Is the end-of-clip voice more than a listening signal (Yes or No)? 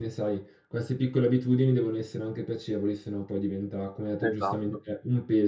No